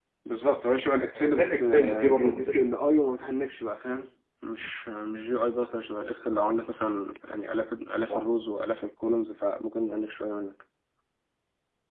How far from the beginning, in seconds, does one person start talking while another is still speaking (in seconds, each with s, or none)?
1.1 s